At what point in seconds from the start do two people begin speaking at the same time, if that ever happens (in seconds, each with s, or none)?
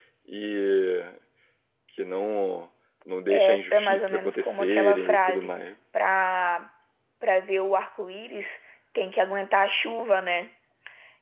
3.3 s